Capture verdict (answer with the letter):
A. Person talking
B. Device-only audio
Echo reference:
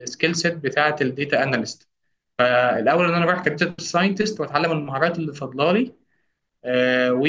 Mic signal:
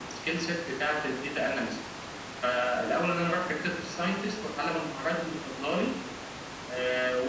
B